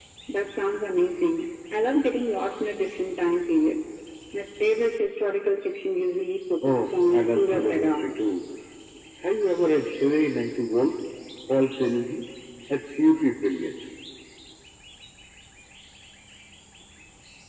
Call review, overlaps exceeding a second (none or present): present